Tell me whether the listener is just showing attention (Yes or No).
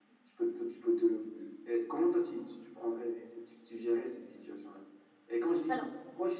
Yes